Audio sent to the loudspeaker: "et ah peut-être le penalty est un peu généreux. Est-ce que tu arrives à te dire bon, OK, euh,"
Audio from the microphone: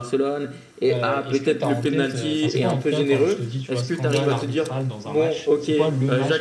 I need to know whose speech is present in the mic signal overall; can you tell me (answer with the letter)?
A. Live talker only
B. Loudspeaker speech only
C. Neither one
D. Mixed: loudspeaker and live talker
D